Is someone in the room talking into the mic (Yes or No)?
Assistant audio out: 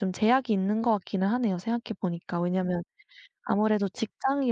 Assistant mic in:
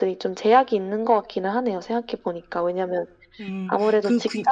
Yes